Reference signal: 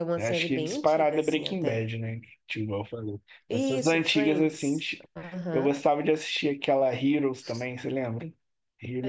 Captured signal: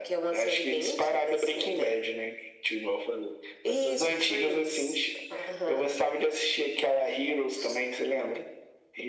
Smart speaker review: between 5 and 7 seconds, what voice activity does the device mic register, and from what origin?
echo only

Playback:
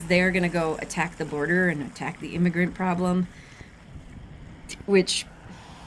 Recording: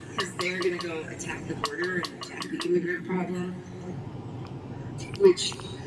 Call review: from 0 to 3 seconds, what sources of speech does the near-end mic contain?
echo only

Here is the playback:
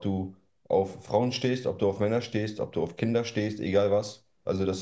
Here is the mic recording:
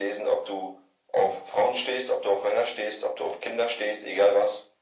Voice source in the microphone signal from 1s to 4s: echo only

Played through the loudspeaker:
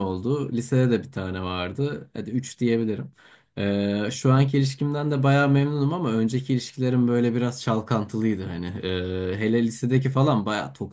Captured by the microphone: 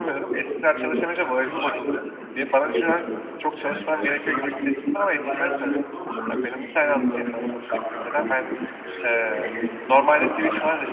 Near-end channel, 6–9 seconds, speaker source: both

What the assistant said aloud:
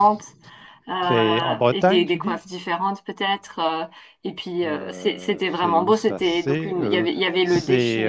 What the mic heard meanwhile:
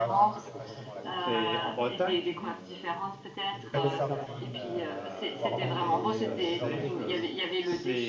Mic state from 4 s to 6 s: both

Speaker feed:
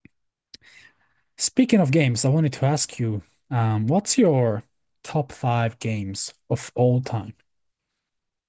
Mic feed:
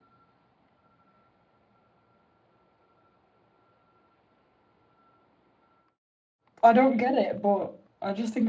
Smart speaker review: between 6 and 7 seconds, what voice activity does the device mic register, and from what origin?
user only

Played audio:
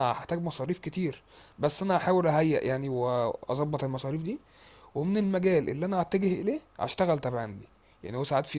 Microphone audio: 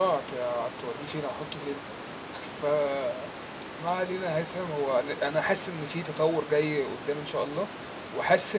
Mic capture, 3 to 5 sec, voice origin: user only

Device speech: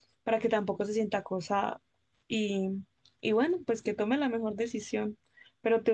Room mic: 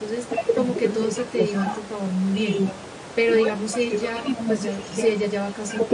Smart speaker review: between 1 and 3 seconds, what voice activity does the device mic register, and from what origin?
both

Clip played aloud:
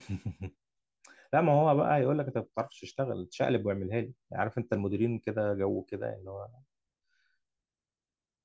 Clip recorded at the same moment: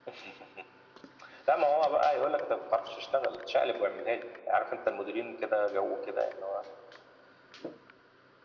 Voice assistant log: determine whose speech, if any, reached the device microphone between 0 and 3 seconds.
echo only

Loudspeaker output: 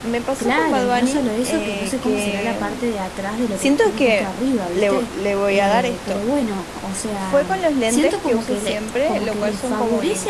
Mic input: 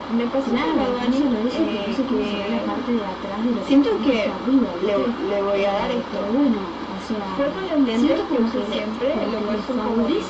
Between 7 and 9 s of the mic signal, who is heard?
echo only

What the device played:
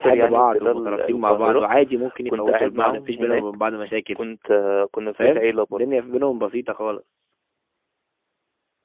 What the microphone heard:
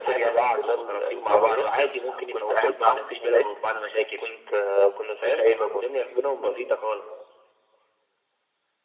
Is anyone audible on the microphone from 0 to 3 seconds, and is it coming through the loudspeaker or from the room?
echo only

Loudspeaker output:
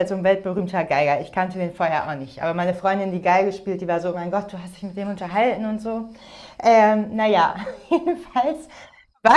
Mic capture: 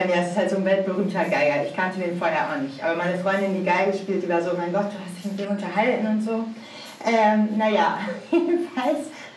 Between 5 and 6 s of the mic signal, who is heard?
echo only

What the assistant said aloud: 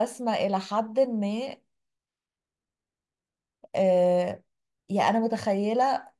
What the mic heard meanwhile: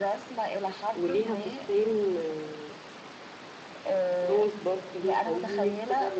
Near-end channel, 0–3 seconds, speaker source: both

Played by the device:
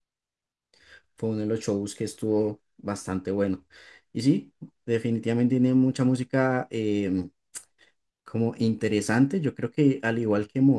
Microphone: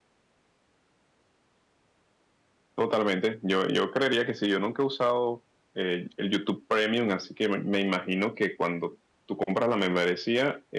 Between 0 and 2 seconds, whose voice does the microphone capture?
neither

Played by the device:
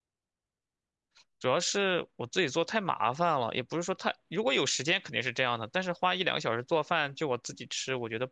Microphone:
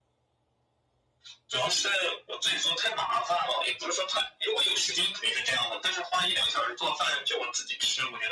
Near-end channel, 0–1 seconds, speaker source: neither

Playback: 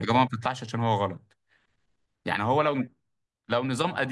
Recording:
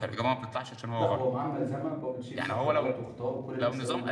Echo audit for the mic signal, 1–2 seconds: both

